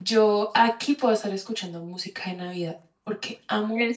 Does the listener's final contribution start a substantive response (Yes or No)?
No